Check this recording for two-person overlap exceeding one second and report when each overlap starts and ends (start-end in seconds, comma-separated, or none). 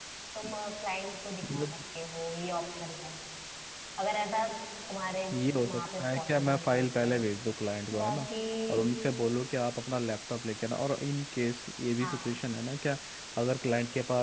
5.7-7.1